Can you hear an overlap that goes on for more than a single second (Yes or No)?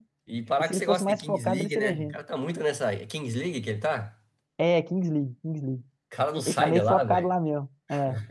Yes